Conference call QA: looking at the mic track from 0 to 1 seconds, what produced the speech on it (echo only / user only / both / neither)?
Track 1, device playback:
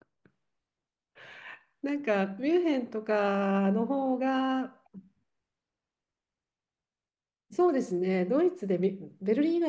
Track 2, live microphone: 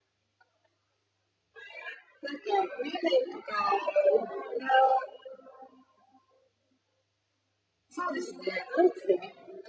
neither